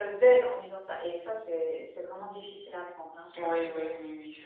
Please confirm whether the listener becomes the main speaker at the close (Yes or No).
Yes